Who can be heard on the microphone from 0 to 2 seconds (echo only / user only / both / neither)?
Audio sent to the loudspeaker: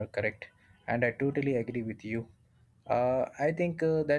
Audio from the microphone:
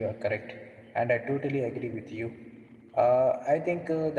echo only